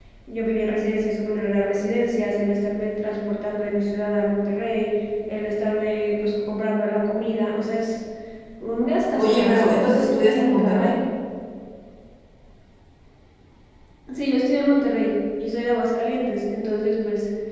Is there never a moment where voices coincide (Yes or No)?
No